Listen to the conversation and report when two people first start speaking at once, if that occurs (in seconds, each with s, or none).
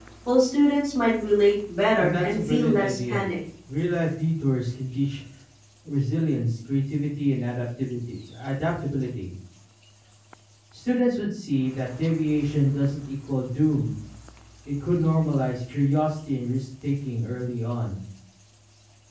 2.0 s